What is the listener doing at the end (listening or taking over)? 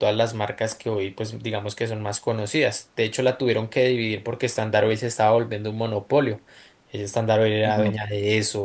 listening